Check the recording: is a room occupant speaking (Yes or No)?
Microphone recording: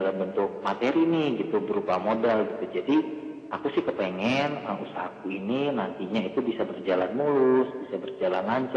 No